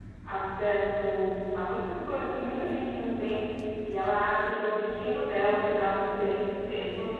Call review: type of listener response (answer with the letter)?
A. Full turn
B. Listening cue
B